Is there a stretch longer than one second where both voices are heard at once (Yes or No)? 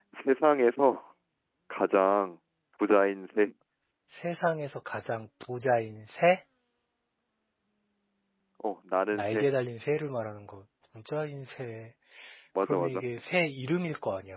No